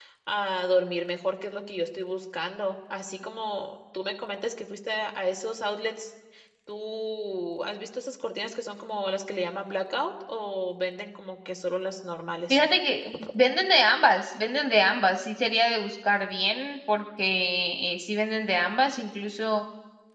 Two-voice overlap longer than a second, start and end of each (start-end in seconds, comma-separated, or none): none